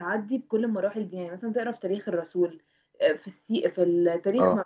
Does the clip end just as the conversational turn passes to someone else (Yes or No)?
No